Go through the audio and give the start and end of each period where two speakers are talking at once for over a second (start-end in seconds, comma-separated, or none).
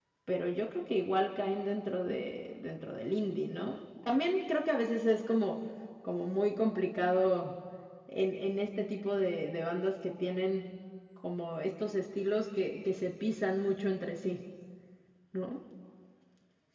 none